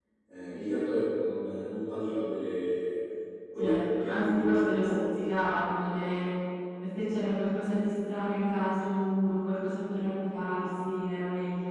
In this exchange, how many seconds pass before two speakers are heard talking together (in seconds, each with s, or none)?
3.6 s